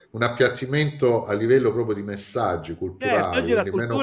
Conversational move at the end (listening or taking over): taking over